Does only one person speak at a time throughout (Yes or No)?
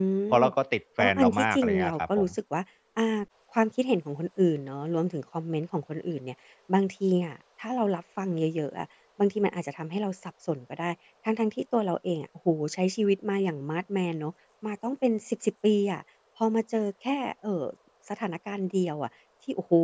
No